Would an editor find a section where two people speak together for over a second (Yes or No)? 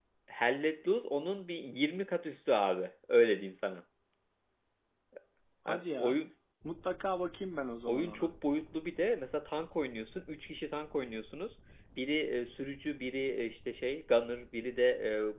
No